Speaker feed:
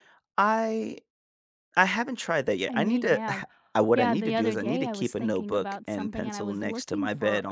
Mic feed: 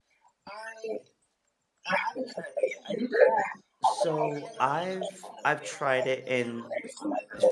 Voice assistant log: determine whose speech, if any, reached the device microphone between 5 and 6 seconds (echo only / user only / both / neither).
both